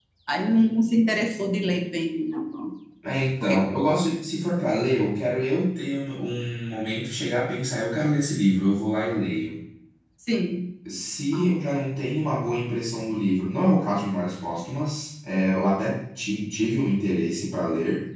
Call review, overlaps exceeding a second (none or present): none